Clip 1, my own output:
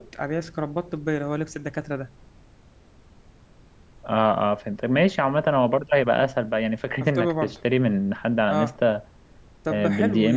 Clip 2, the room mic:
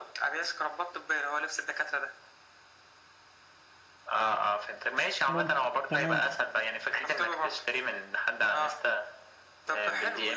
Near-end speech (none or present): present